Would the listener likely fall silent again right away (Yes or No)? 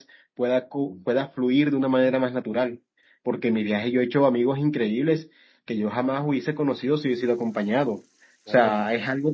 Yes